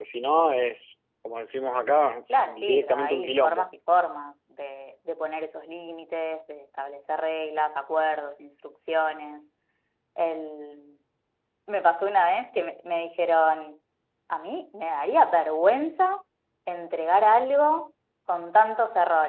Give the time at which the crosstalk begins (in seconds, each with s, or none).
2.3 s